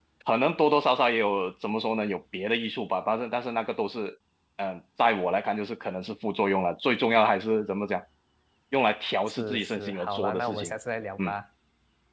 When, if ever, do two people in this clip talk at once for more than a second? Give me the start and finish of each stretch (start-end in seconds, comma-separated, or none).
9.4-10.7